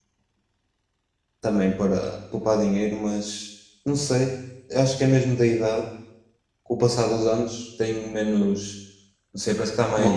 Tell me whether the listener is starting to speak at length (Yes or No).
No